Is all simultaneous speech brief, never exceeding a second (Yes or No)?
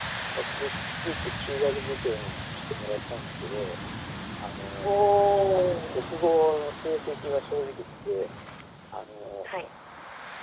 Yes